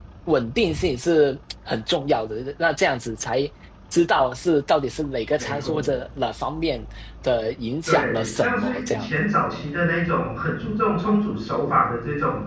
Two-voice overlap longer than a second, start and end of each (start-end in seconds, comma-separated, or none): 7.9-9.1